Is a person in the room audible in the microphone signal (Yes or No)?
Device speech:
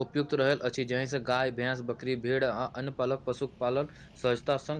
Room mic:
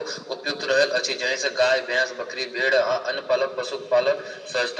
No